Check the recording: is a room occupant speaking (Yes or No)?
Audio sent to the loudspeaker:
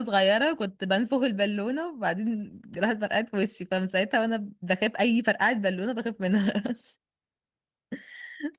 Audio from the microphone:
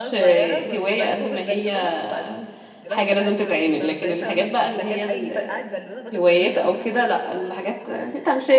Yes